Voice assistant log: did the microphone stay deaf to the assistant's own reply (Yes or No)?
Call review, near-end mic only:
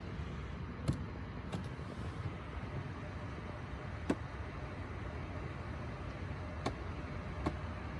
Yes